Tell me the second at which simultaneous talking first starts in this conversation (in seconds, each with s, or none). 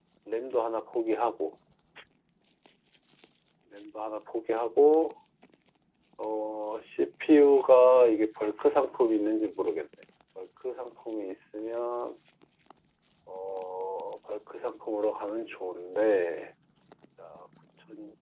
none